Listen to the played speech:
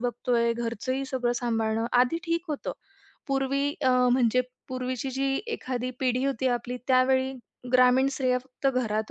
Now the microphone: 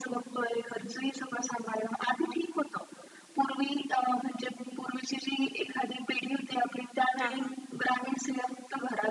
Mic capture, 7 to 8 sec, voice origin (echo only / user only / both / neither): both